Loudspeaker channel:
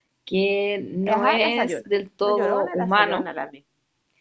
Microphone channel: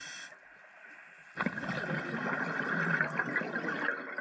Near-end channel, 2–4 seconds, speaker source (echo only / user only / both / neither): neither